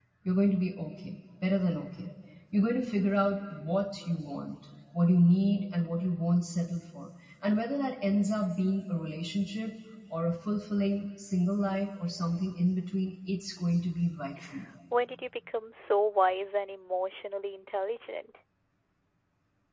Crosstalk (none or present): none